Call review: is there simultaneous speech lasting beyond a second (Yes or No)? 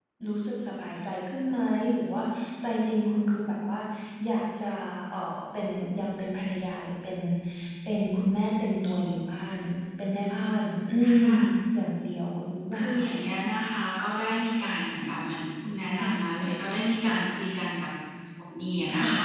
No